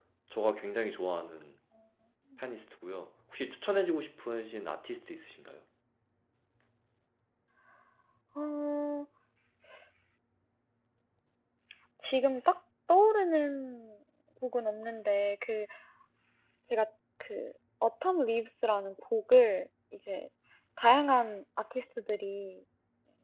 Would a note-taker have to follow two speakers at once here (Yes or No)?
No